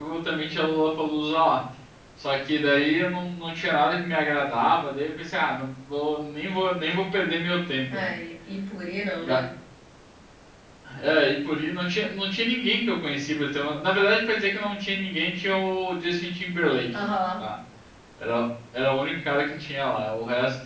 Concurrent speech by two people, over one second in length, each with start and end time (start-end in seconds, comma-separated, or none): none